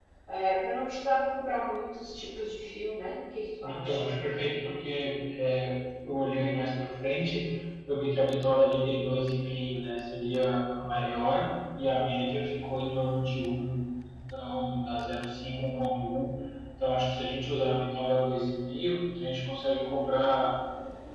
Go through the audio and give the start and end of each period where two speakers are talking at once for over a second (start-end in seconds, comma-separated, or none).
none